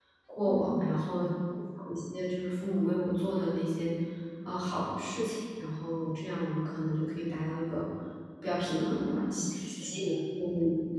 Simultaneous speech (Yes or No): Yes